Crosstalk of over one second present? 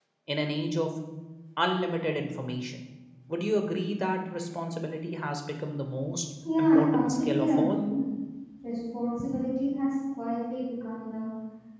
Yes, from 6.4 s

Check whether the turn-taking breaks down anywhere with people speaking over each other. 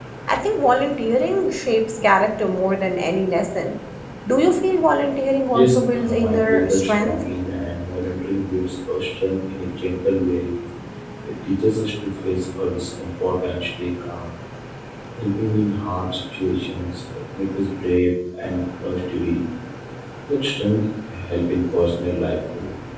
Yes, from 5.5 s

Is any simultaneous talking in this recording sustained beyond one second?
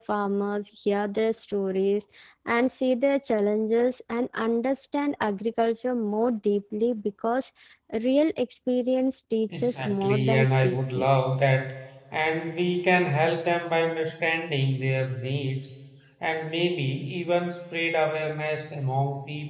Yes, from 9.5 s

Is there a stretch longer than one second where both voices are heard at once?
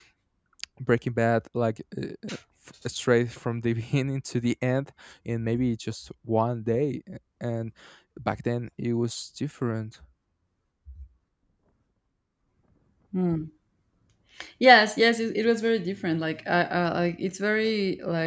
No

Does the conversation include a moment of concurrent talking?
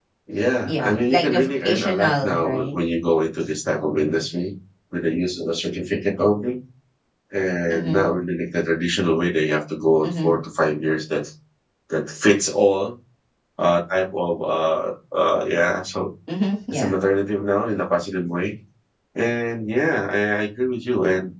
Yes, from 0.6 s

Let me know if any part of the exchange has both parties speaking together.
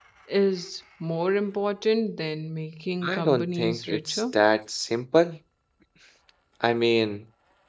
Yes, from 3.0 s

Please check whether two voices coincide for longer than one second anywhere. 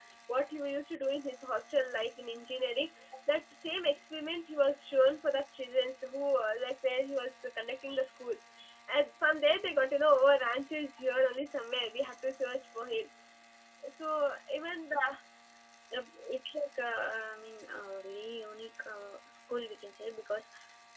No

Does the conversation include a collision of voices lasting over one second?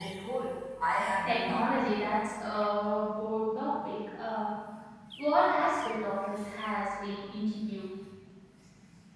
No

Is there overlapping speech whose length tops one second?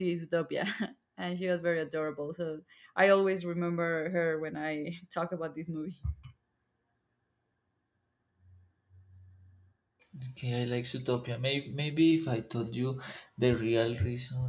No

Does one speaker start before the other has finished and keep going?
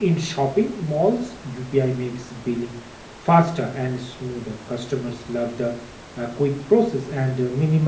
No

